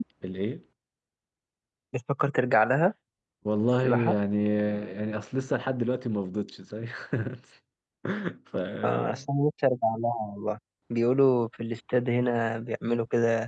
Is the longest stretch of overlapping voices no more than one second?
Yes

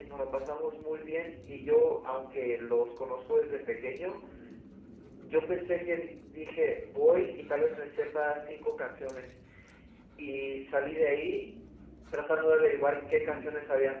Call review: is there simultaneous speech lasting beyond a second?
No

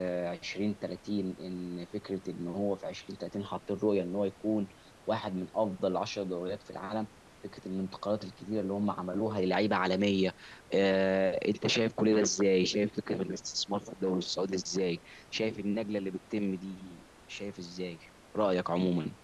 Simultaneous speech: No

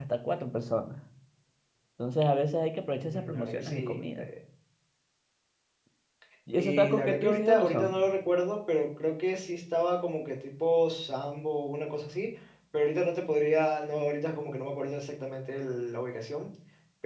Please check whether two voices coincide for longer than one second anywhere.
Yes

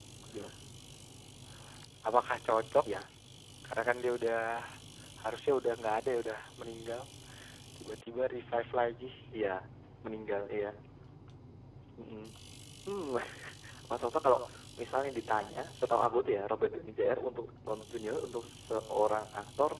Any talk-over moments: No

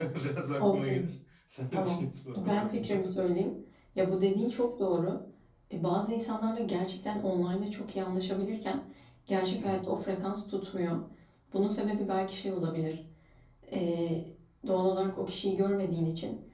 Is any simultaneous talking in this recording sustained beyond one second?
Yes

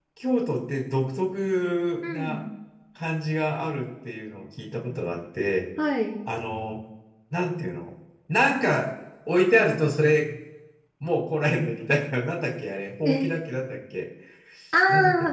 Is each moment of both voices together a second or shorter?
Yes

